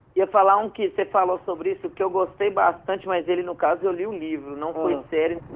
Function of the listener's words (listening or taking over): listening